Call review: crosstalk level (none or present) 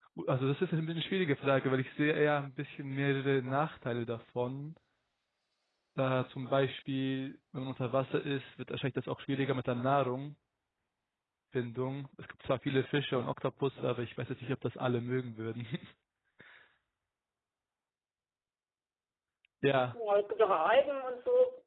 none